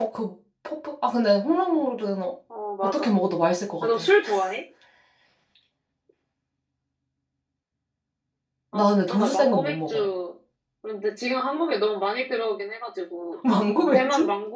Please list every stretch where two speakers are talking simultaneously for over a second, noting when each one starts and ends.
8.7-10.0

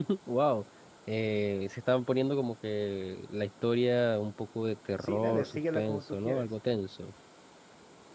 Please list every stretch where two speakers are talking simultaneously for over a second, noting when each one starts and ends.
5.0-6.5

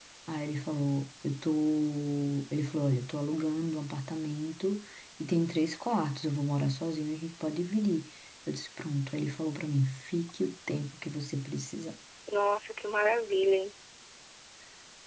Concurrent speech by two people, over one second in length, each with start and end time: none

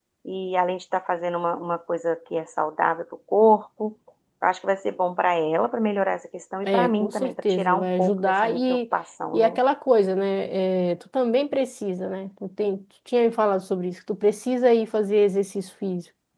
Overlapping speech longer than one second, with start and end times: 6.7-8.8

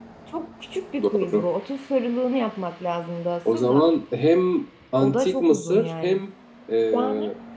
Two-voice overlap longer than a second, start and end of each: 5.0-6.2

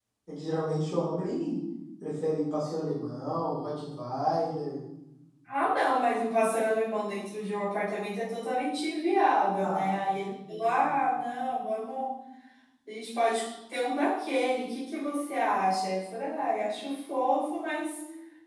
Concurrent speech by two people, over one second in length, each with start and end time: 9.6-10.9

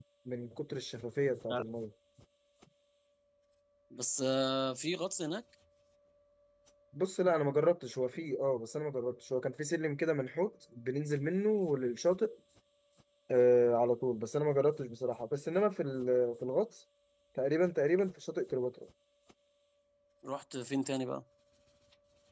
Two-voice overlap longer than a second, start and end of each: none

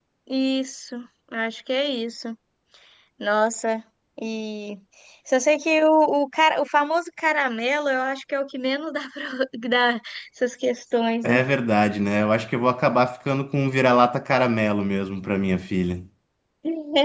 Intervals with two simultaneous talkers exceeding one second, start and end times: none

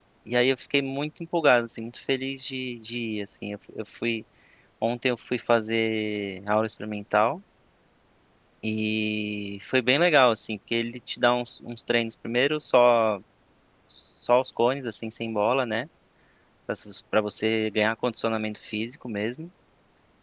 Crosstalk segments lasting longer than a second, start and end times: none

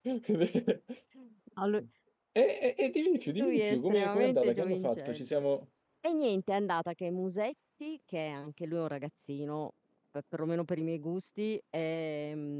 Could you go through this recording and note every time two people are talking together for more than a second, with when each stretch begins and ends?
3.4-5.4

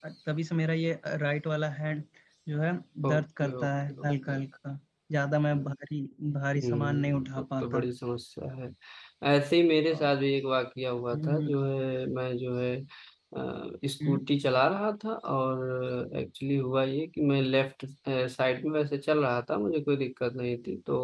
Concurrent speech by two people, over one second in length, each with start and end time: 3.1-4.4, 6.6-7.8

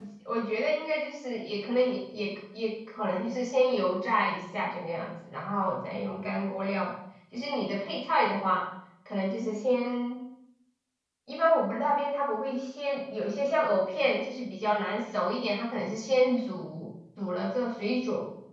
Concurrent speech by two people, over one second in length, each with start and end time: none

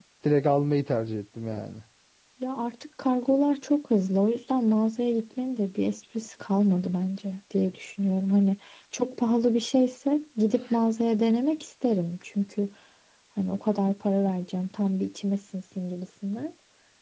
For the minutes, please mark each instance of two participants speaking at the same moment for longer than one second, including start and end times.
none

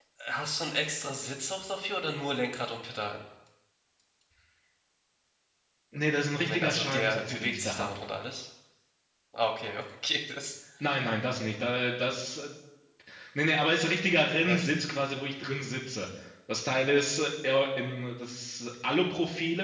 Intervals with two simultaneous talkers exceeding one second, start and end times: 6.4-7.9

